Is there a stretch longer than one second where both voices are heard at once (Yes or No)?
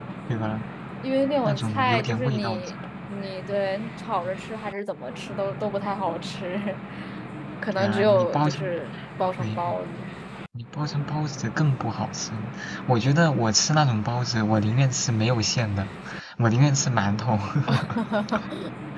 Yes